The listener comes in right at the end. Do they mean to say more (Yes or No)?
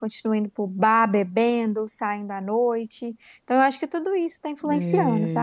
Yes